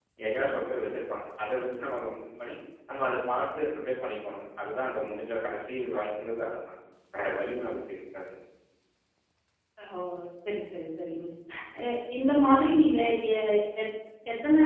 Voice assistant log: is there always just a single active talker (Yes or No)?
Yes